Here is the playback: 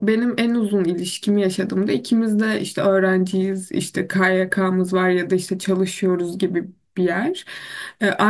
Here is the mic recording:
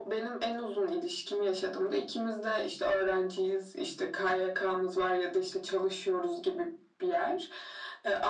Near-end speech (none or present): none